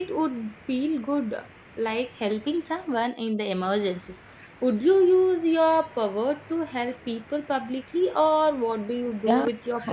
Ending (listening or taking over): taking over